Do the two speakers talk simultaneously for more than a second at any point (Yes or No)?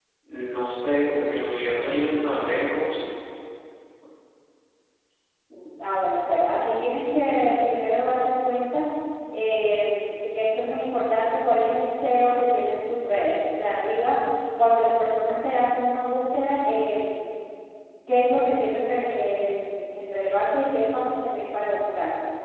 No